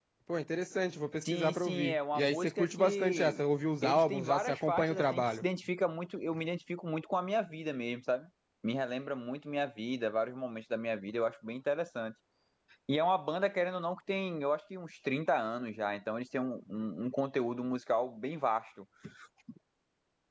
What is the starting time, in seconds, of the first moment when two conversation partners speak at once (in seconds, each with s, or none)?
1.3 s